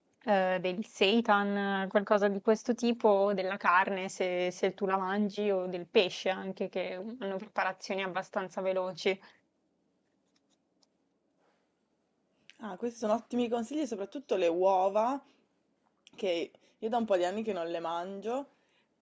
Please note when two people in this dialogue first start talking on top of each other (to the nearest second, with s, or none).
none